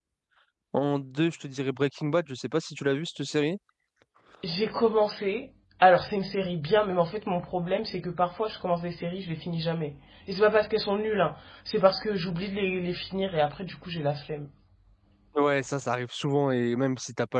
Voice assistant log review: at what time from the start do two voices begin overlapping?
none

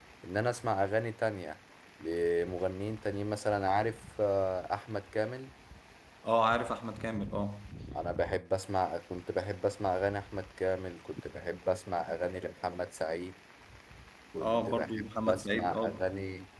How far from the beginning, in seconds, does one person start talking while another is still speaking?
14.4 s

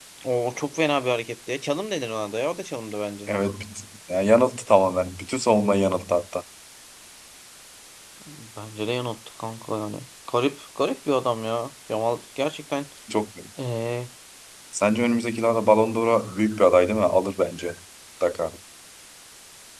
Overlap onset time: none

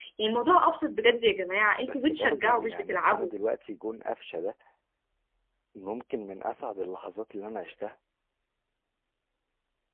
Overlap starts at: 1.8 s

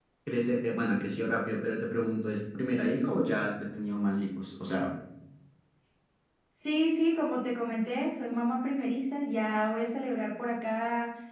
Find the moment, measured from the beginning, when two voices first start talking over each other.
none

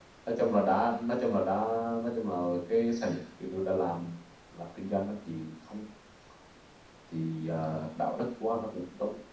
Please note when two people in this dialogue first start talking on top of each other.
none

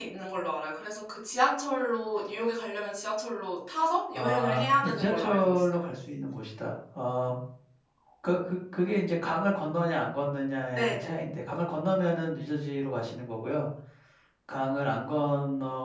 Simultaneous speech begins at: 4.1 s

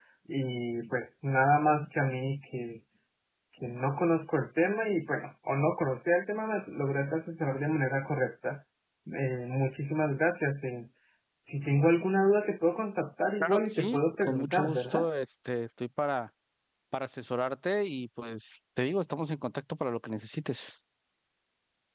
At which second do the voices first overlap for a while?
13.4 s

